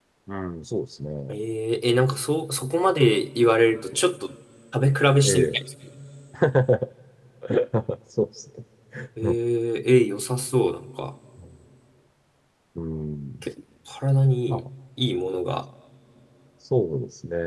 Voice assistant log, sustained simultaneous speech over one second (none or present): none